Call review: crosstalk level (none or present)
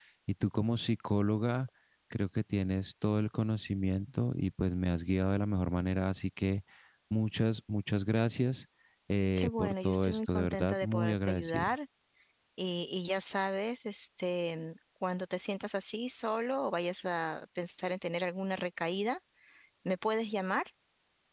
present